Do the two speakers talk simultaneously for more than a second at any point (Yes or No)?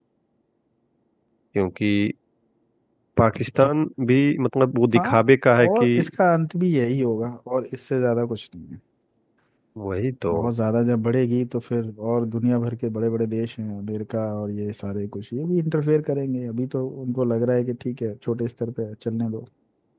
No